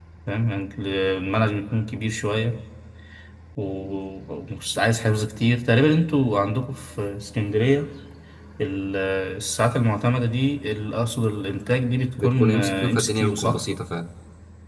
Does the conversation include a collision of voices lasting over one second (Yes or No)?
Yes